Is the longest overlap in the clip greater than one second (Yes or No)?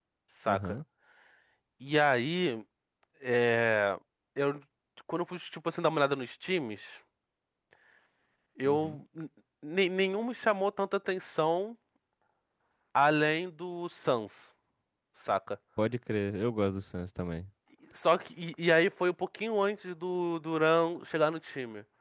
No